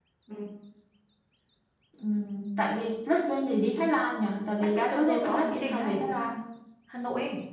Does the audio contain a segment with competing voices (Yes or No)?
Yes